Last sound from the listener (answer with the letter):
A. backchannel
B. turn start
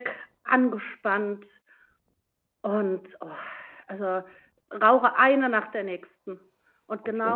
A